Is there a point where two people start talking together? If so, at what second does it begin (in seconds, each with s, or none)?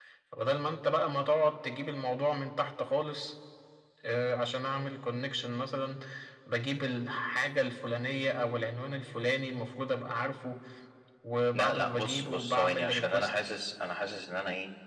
11.5 s